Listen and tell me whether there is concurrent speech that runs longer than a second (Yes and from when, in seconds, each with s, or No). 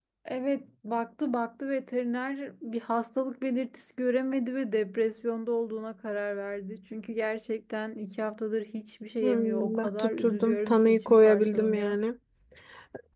Yes, from 9.2 s